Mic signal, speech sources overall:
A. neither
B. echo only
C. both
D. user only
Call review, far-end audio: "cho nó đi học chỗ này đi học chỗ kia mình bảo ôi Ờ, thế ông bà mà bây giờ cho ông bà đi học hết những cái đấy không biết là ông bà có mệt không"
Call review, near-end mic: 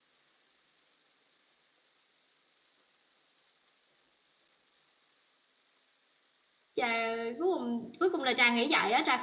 D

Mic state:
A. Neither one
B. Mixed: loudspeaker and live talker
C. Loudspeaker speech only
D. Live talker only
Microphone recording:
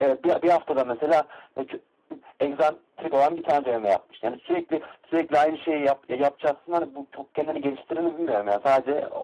C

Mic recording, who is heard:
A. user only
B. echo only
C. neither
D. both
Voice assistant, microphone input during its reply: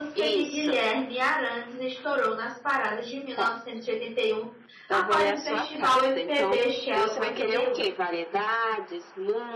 D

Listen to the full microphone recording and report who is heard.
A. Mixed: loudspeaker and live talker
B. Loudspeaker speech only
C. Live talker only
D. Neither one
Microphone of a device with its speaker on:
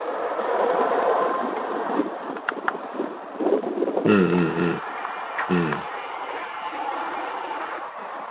C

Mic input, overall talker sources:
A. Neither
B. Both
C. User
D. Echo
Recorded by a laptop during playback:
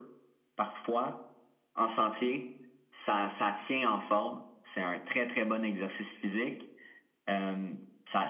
D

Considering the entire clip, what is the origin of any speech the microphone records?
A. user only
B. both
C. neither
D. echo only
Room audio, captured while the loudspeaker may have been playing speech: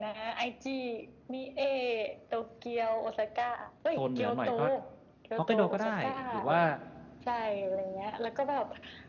B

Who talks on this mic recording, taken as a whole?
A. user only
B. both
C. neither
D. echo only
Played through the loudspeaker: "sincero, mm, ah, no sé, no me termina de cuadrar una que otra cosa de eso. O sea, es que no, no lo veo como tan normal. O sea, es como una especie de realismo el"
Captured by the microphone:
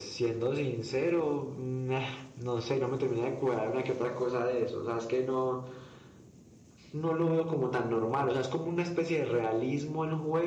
D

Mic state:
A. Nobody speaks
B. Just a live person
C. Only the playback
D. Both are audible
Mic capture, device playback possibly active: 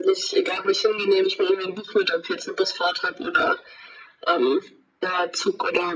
C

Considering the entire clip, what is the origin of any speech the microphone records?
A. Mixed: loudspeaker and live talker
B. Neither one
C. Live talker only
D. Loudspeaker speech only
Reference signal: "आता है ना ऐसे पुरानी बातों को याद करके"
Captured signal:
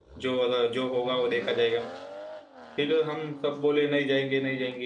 C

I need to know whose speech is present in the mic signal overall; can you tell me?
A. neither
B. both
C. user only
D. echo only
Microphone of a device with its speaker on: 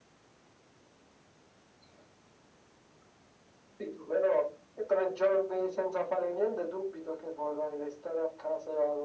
D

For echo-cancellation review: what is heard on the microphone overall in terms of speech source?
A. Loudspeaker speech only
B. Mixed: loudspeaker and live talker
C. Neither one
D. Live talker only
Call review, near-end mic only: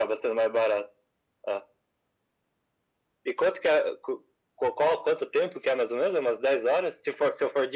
A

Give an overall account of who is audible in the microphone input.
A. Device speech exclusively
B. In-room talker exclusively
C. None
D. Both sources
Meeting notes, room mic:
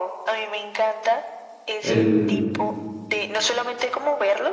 D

